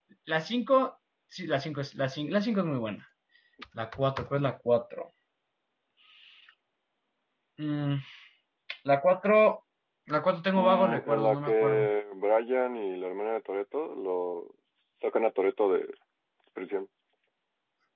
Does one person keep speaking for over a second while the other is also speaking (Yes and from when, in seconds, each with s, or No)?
Yes, from 10.6 s